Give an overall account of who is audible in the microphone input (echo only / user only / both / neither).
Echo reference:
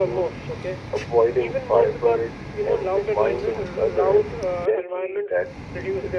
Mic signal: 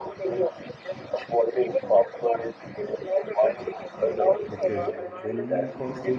both